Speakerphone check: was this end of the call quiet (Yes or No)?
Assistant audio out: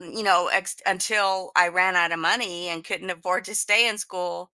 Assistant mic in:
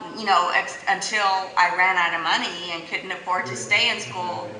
No